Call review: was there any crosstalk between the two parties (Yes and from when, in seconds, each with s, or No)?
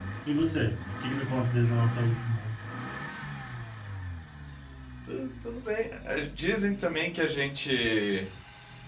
No